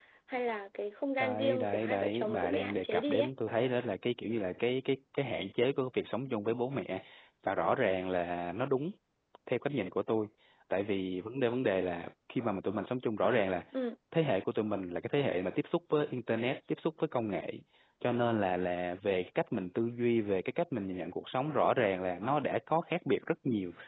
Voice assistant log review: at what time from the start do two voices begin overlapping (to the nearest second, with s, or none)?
1 s